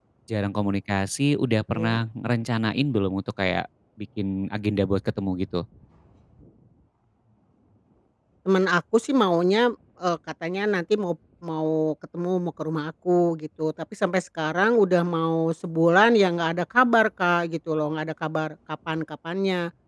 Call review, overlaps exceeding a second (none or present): none